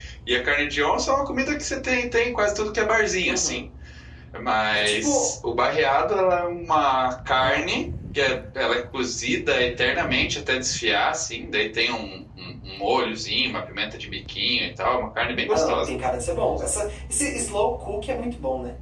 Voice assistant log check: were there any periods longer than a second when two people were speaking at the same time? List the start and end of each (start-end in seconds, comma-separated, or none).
none